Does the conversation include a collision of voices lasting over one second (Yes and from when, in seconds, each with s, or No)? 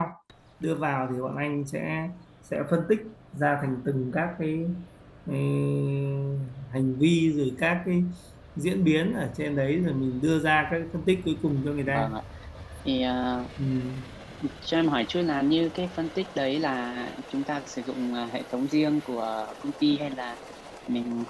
No